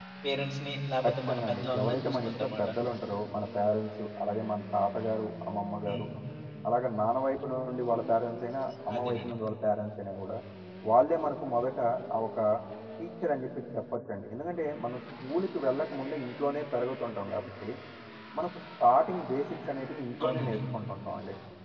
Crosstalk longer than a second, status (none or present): present